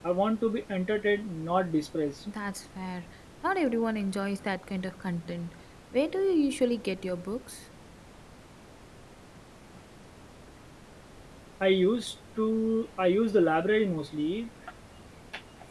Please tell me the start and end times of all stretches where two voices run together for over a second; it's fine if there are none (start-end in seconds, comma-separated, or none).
none